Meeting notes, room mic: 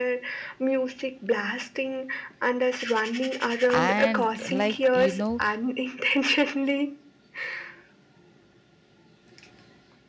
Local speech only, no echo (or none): And, like, you know,